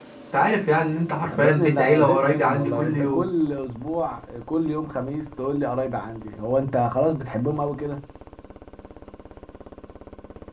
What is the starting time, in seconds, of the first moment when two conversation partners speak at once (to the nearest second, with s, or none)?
1 s